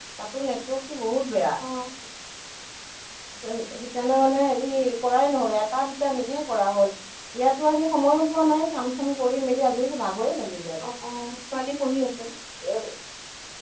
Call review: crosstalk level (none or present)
none